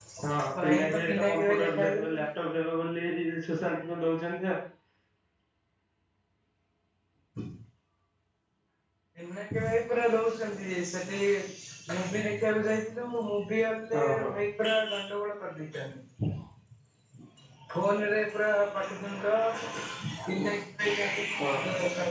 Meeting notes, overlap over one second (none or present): present